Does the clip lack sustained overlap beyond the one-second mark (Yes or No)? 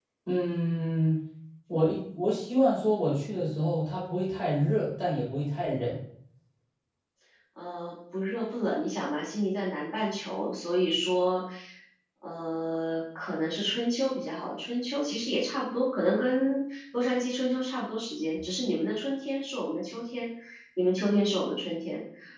Yes